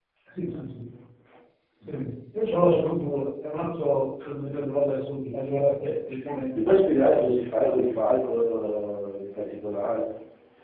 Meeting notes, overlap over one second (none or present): none